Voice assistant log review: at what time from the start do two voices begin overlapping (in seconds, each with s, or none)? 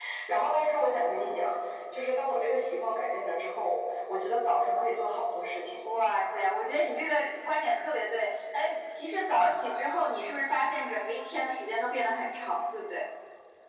none